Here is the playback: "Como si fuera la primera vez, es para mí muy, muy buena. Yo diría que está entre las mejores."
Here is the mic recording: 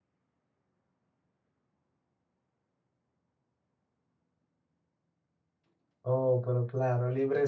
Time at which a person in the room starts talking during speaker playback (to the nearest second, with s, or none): 6 s